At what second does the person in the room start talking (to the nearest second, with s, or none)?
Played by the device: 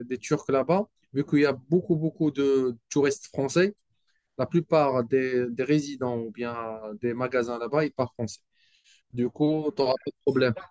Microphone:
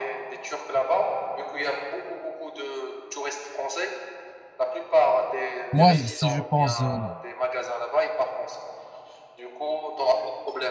6 s